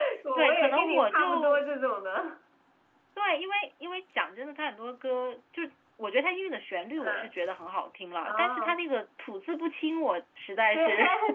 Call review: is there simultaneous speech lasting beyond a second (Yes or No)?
Yes